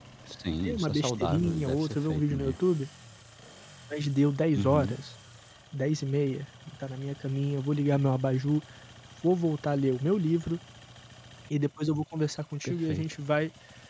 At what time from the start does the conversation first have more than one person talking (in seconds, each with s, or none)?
0.6 s